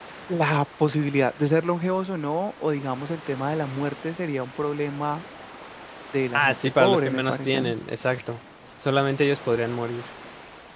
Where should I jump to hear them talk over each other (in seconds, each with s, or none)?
6.4 s